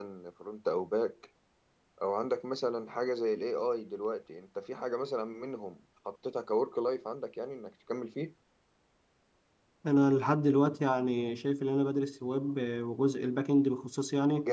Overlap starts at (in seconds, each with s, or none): none